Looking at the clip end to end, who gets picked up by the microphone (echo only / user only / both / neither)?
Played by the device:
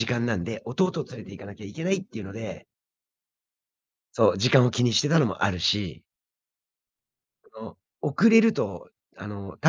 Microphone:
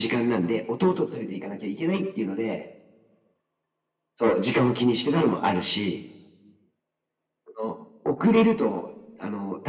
echo only